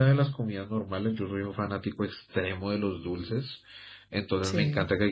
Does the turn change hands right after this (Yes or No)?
No